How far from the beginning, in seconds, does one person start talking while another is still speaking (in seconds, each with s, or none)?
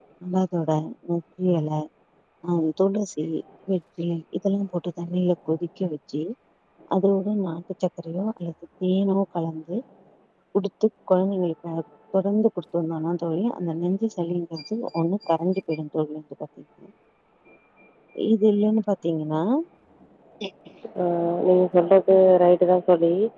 none